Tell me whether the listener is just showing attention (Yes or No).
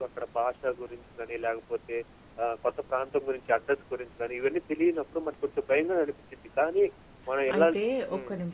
No